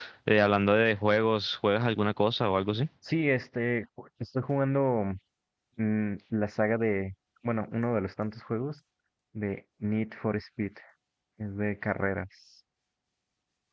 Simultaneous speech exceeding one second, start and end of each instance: none

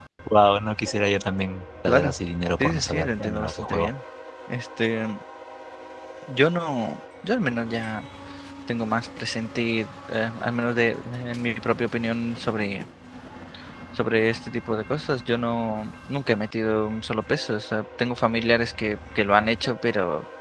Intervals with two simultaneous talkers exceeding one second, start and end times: 2.6-3.9

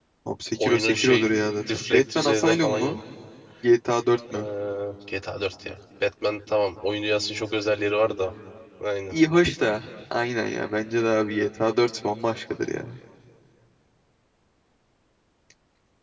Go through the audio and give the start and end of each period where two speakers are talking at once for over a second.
0.6-3.0

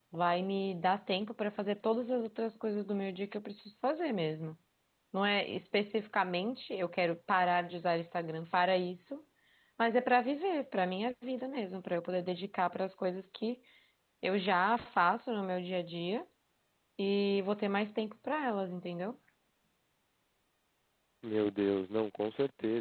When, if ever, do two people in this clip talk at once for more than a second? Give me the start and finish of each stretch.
none

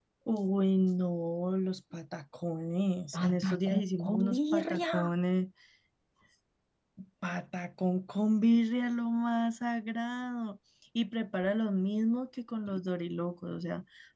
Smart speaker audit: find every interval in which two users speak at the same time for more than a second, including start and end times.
3.2-5.0

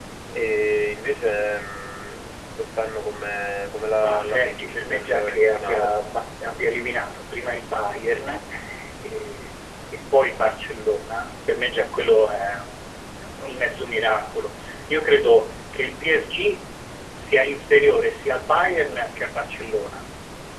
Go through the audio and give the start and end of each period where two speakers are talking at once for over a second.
4.0-5.9

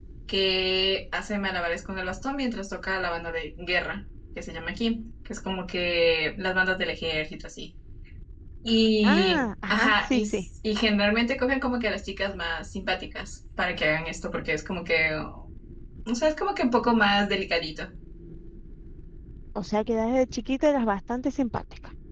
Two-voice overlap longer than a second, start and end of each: 9.0-10.4

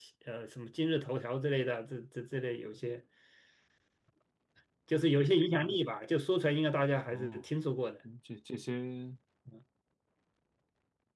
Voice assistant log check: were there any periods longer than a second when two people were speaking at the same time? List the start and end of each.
none

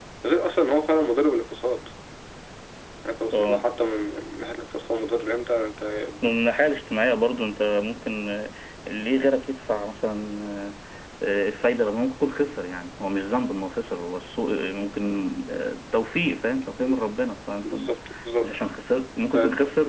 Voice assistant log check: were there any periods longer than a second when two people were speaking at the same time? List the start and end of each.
none

